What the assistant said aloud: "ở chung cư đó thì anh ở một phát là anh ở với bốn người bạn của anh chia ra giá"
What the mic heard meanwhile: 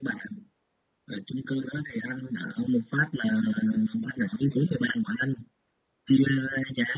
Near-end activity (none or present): none